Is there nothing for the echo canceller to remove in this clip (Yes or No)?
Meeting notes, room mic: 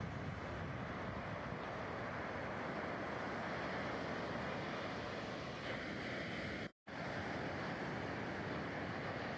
Yes